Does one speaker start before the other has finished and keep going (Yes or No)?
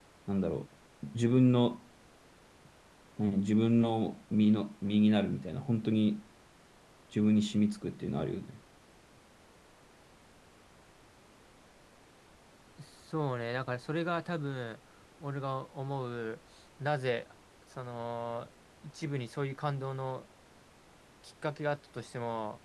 No